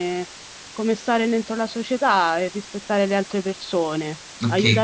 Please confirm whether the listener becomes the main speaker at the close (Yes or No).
Yes